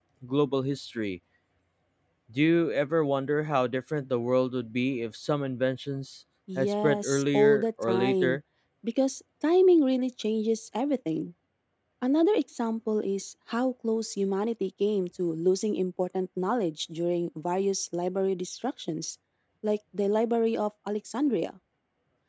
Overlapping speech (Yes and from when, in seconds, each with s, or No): Yes, from 6.5 s